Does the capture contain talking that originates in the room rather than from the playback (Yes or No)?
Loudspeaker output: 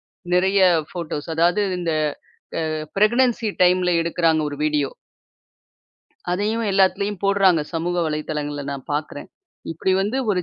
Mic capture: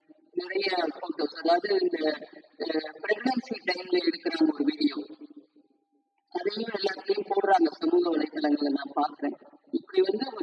No